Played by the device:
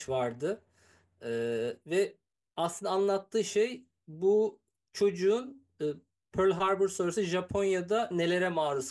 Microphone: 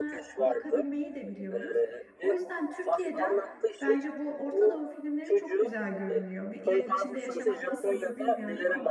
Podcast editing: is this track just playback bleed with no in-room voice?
No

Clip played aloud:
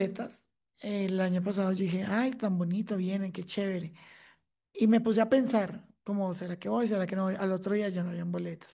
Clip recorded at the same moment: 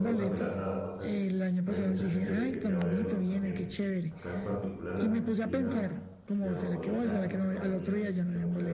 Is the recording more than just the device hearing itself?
Yes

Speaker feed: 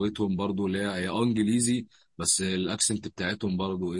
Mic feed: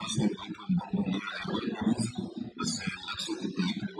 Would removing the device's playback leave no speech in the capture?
Yes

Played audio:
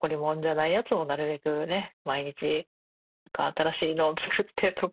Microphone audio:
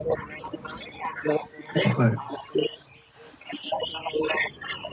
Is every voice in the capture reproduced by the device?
No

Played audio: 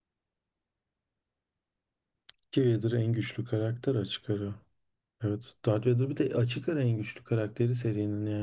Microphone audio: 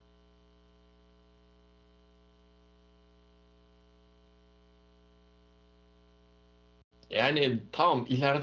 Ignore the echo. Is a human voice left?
Yes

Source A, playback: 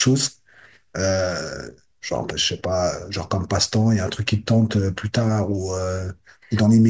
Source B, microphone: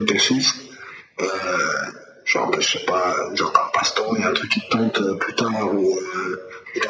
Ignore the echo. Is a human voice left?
No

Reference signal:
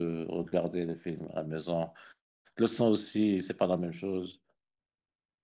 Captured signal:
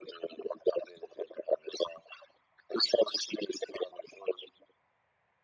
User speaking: No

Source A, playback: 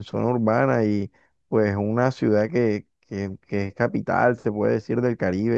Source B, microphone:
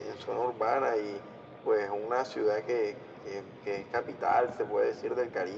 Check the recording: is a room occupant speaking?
No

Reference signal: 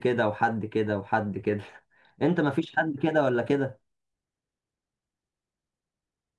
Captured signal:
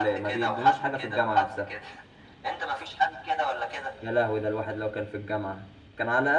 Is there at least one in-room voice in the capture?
Yes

